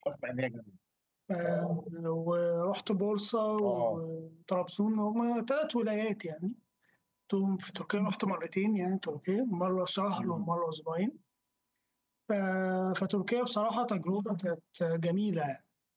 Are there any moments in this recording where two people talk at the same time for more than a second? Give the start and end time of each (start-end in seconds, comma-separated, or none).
none